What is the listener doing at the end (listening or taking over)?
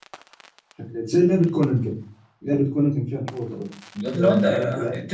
taking over